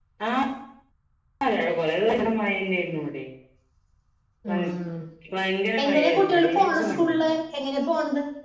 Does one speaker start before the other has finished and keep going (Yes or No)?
Yes